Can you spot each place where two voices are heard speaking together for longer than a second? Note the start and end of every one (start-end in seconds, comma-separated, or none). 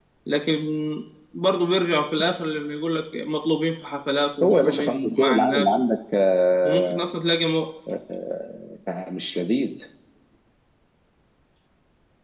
4.4-5.8